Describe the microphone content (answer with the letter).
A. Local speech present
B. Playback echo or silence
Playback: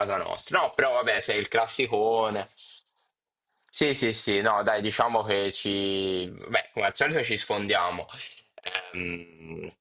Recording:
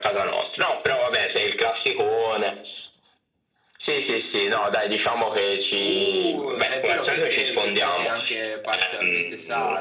A